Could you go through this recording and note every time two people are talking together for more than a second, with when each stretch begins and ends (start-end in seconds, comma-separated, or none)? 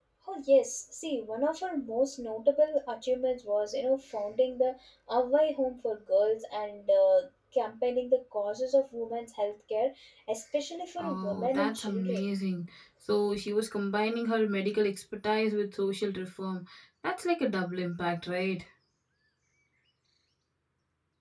11.0-12.3